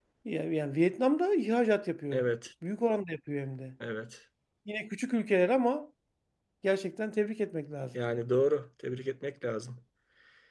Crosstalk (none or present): none